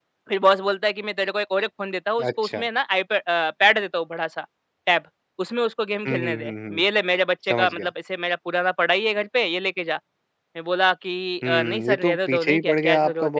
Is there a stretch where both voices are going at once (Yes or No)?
Yes